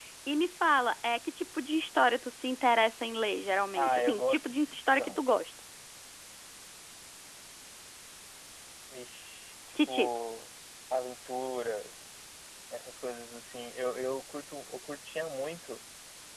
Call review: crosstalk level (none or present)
present